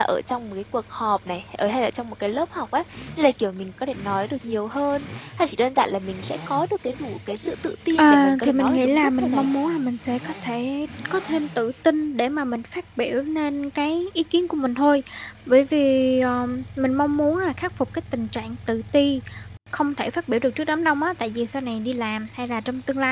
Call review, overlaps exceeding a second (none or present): present